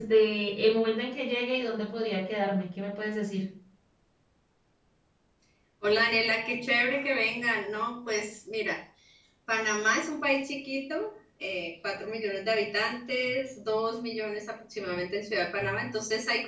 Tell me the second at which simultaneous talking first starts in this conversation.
none

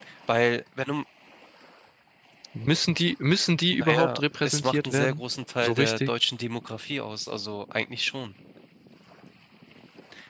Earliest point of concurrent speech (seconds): 3.7 s

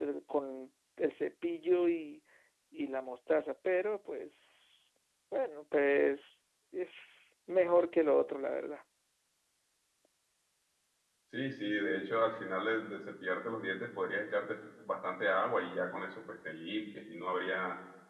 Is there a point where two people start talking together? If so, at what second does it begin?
none

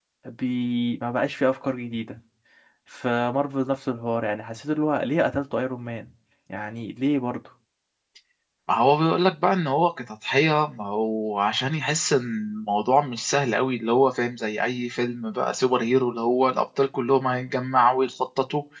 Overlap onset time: none

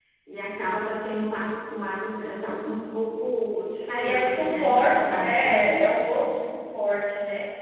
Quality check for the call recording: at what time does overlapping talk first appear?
4.0 s

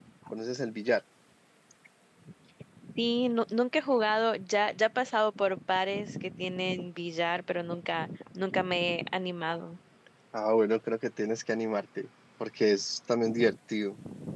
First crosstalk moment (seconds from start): none

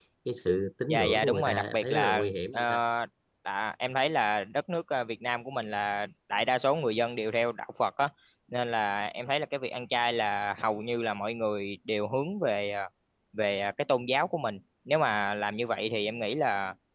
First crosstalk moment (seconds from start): 0.9 s

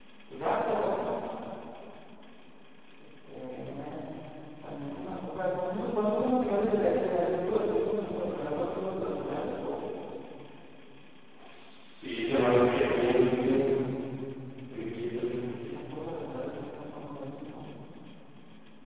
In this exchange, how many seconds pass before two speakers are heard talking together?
none

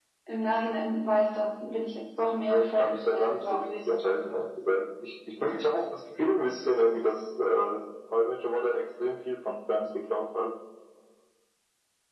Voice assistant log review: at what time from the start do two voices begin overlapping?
2.5 s

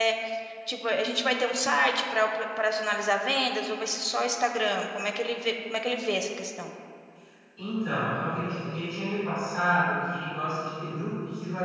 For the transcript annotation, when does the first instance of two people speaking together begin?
none

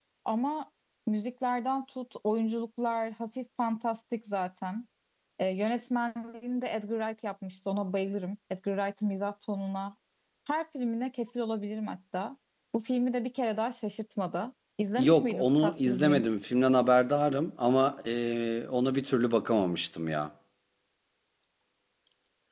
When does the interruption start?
15.0 s

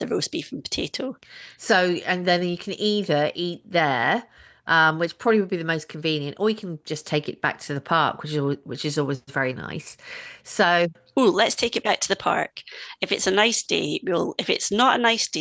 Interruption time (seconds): none

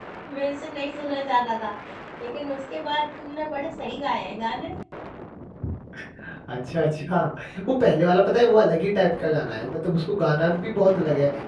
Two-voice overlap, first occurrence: none

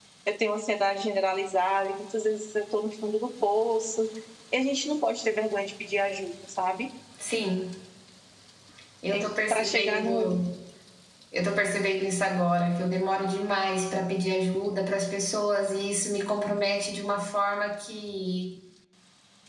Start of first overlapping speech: 9.2 s

